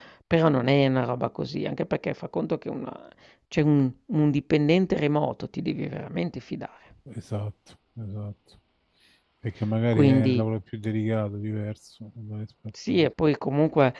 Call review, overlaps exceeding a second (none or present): none